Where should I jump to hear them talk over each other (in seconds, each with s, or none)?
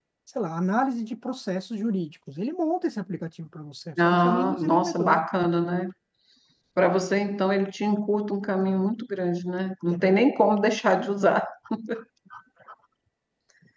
4.0 s